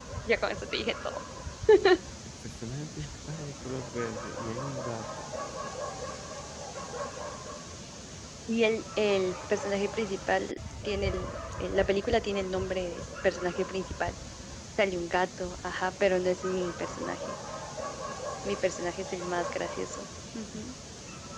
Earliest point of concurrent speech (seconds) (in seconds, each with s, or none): none